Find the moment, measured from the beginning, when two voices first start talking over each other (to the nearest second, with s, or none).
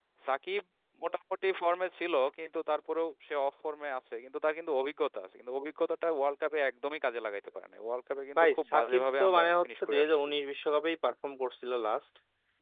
8 s